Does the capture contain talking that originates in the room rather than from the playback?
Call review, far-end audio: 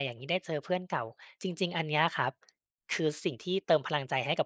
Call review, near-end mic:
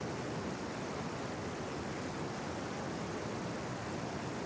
No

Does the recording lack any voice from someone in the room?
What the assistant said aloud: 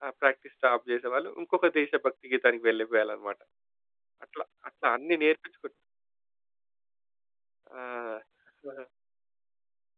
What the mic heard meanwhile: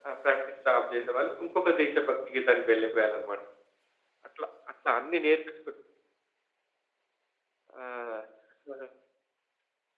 Yes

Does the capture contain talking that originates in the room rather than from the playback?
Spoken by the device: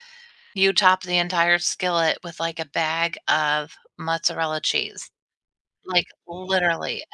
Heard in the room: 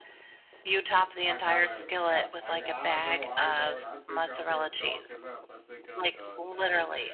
Yes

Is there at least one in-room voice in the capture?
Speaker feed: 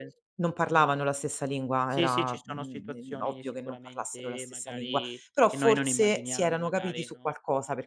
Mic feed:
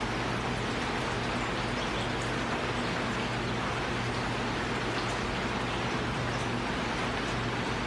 No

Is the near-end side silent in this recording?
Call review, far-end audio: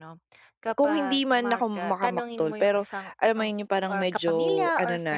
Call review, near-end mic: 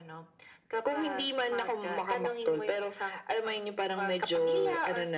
Yes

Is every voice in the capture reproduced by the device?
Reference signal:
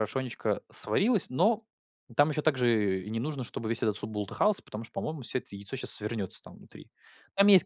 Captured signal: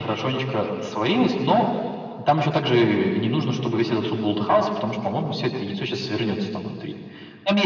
Yes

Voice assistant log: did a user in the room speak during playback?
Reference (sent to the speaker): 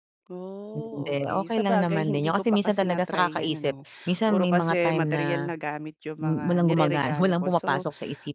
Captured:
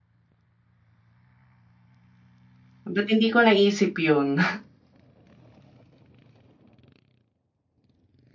Yes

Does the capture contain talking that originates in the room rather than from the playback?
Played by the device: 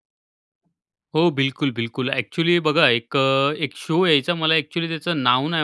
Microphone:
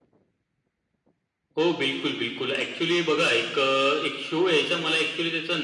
No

